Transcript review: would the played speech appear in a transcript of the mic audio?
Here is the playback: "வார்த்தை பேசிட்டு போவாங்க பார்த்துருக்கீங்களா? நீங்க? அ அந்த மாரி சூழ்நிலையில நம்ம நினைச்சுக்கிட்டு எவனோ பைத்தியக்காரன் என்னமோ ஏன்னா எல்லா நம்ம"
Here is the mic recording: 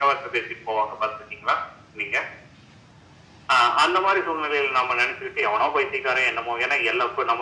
Yes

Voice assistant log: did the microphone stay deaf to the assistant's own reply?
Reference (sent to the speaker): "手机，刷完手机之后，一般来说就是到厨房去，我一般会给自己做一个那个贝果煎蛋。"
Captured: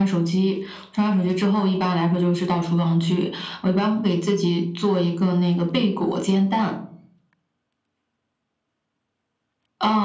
No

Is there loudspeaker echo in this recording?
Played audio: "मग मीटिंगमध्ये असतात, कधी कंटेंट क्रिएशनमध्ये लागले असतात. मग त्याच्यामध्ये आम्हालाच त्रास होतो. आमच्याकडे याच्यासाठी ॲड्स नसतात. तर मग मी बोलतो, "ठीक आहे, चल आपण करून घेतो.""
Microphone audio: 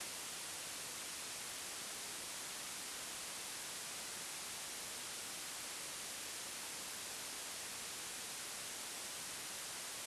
No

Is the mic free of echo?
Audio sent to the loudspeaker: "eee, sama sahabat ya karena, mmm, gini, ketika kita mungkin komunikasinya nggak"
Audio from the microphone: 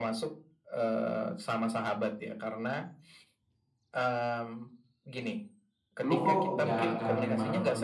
No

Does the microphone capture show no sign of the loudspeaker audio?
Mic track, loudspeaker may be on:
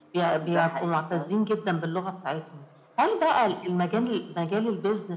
No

